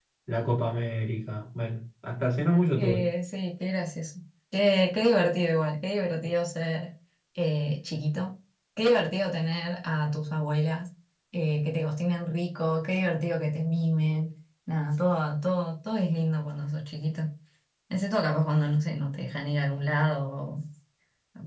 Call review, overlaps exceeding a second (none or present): none